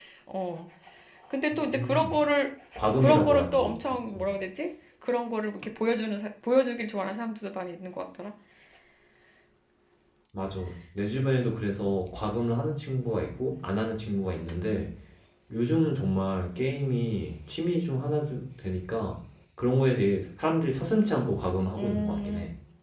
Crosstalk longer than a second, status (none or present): present